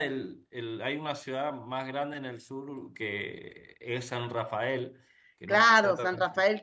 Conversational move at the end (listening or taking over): taking over